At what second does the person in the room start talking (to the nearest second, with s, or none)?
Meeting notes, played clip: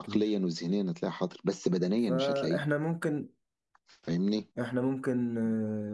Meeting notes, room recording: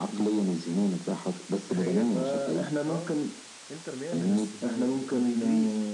2 s